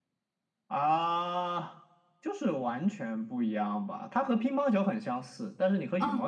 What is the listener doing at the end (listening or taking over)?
listening